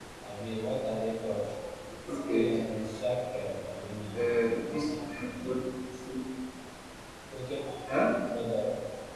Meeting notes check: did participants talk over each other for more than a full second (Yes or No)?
Yes